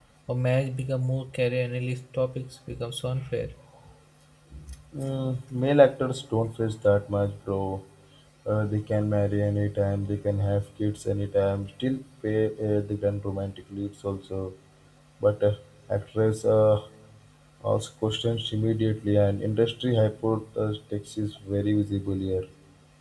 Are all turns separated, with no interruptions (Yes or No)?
Yes